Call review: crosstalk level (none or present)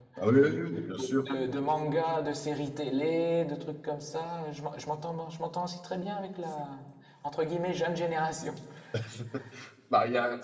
none